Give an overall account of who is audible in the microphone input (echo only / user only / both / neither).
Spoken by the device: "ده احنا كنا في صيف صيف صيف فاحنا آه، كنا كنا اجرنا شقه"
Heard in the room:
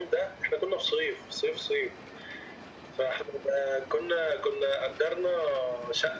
echo only